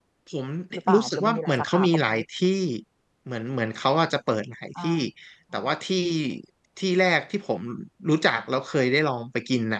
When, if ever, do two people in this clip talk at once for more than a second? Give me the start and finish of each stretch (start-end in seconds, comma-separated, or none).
0.9-2.2